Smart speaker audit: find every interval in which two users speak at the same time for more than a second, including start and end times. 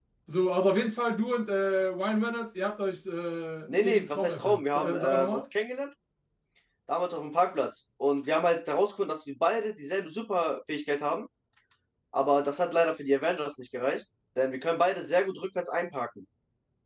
3.7-5.4

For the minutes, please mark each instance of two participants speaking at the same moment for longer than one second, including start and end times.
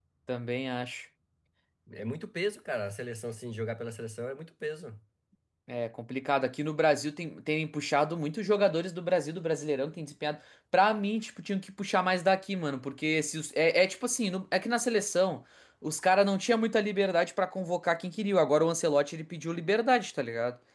none

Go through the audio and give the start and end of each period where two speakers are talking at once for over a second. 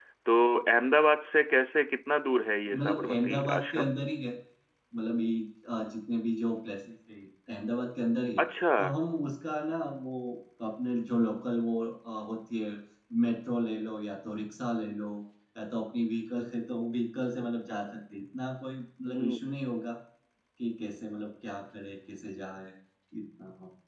2.7-4.0

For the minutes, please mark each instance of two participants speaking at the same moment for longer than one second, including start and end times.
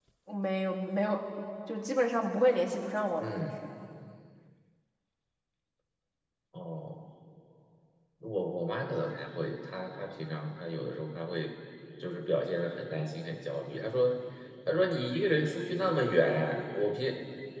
none

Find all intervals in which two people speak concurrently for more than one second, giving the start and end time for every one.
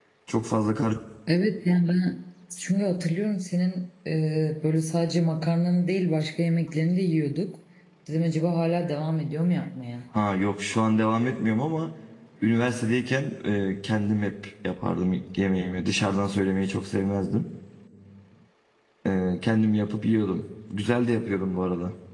none

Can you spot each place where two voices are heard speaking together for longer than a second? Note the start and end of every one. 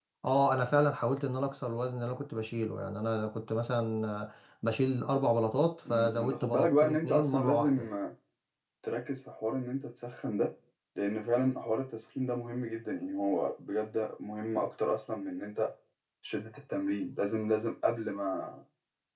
5.9-7.9

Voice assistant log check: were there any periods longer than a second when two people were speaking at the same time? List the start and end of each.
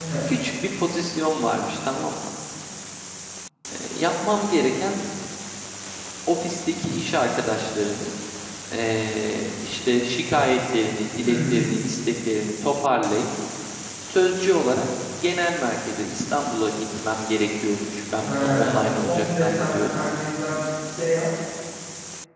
18.2-20.0

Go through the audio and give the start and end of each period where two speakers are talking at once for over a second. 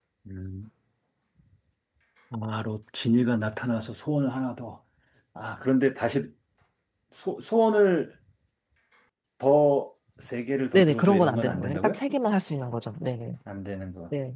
10.7-12.0

